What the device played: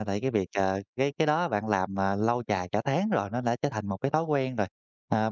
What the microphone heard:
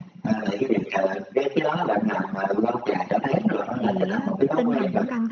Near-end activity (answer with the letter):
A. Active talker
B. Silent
A